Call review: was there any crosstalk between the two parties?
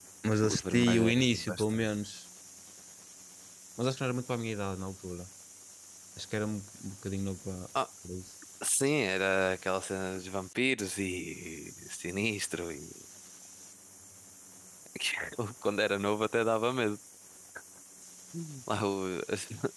Yes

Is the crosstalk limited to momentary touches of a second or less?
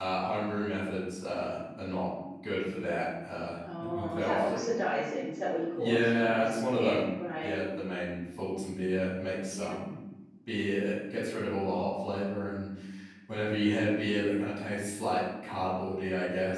No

